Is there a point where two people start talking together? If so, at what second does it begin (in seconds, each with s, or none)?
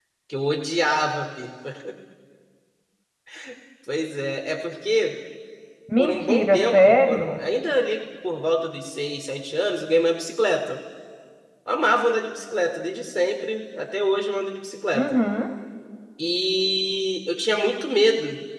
6.0 s